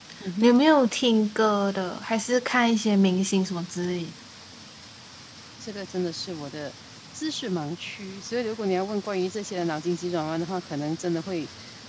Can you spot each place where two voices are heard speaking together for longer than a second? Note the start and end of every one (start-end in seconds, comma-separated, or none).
none